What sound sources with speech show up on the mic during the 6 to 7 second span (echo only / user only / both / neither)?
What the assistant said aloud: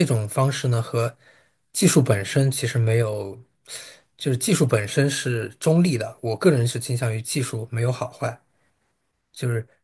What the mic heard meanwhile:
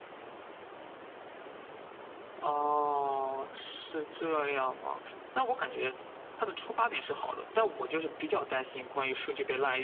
user only